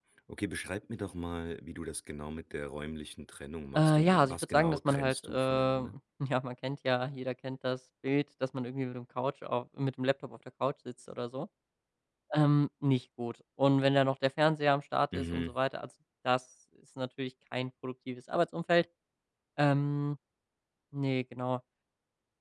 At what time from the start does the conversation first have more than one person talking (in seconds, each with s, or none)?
3.8 s